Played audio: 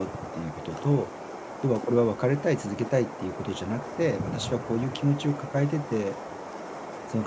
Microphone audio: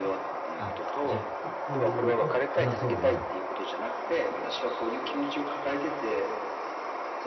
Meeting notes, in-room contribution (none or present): present